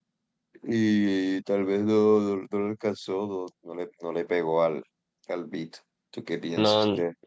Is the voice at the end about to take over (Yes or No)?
Yes